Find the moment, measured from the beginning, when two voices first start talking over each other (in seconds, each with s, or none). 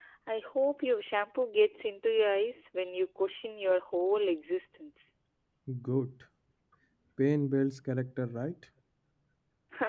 none